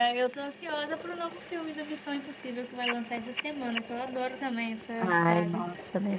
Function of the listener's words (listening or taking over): taking over